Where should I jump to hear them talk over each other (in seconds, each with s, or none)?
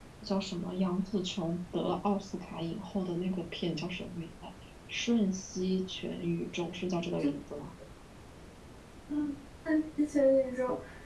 none